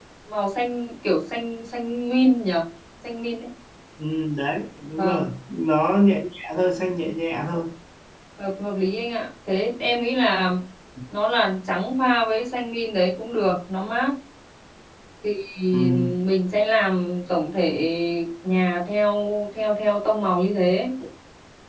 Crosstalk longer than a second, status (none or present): none